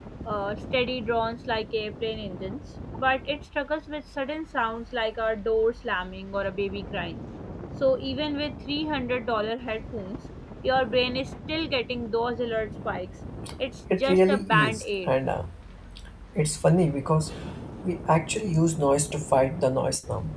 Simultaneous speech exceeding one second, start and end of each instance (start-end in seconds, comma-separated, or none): 13.9-15.1